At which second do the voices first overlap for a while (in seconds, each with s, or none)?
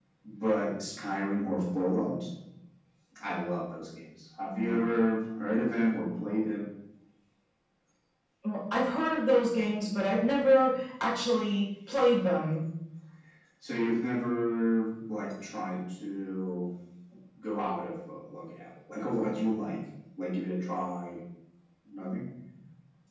none